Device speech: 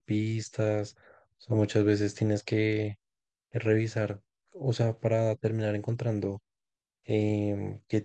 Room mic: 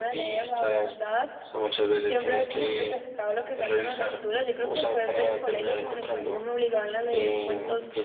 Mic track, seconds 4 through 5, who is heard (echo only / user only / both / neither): both